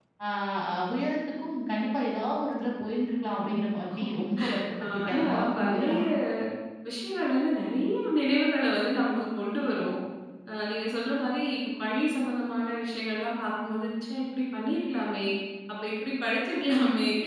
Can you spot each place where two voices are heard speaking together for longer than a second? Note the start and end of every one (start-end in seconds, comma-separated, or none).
4.8-6.0